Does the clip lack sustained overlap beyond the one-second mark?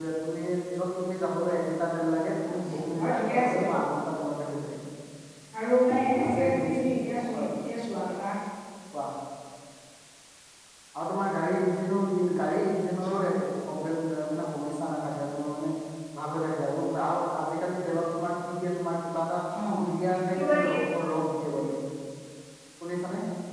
No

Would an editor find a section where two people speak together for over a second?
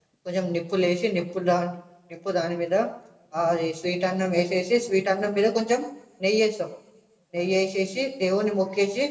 No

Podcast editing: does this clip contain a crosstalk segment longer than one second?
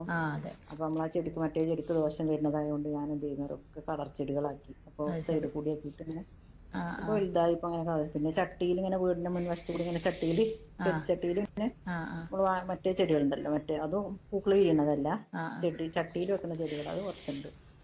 No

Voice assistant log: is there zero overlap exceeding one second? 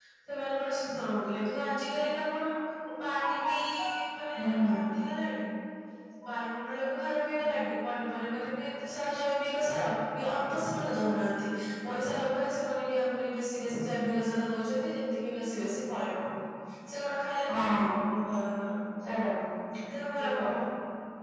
Yes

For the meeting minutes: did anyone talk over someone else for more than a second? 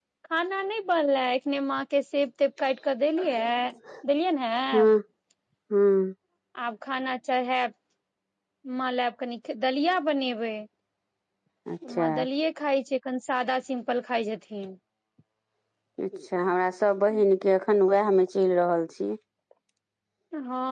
No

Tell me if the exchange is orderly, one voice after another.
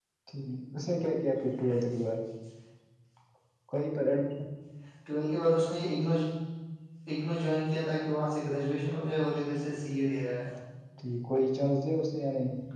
Yes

